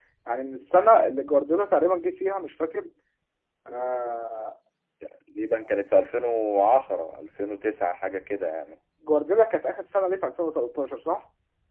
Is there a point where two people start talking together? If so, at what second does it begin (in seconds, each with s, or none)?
none